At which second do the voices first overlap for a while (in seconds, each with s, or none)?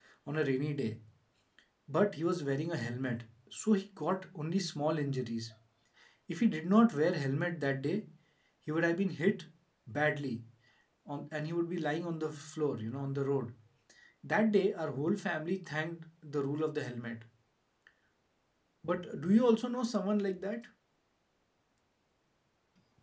none